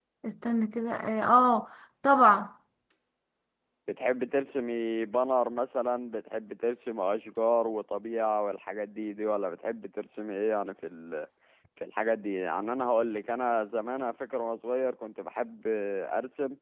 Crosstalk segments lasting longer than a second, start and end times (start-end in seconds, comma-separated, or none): none